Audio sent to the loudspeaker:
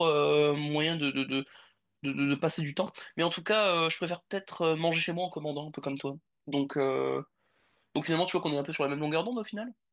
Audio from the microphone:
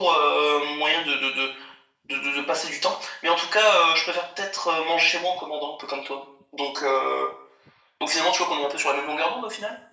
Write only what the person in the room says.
none

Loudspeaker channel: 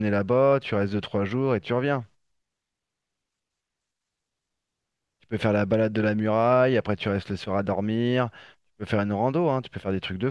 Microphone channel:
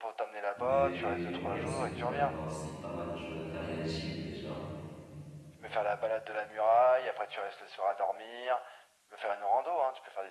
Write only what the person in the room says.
Mais ouais, c'est, il doit y avoir aussi pas mal de choses à faire. Il y a l'Égypte déjà.

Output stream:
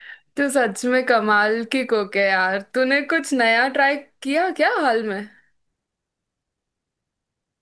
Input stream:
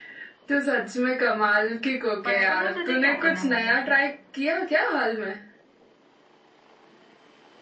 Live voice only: बचपन में तुझे क्या करना पसंद था

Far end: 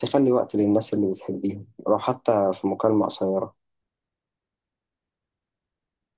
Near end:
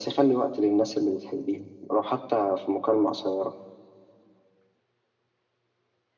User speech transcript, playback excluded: none

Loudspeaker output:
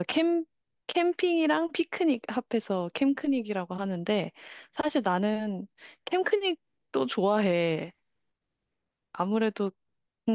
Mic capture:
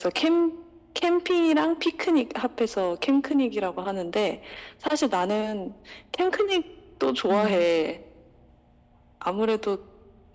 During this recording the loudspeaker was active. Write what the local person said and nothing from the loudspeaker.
음,

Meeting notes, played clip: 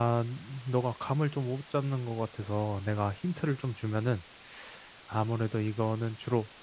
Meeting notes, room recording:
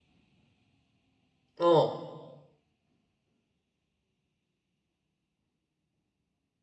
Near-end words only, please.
어,

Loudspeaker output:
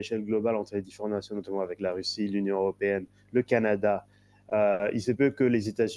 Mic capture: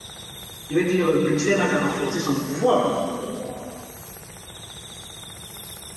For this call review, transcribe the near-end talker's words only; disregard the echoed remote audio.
je veux dire, Bruxelles n'a qu'à renforcer son pouvoir.

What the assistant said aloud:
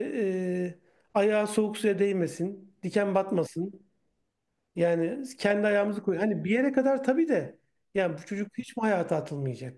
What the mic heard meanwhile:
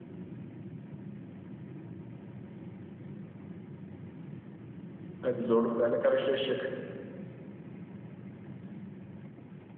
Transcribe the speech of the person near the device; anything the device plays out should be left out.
Tabii zorluklarla karşılaşacak.

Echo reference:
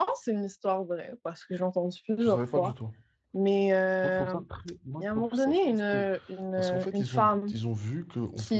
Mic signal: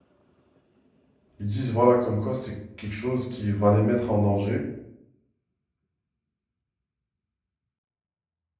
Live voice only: Ils disent, voilà, comme quoi c'est quelque chose qui va les mettre en danger,

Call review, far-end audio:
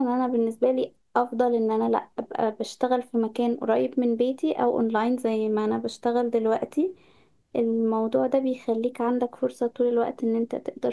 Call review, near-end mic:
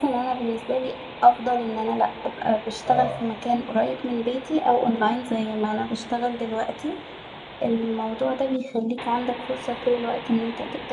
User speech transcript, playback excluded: اه

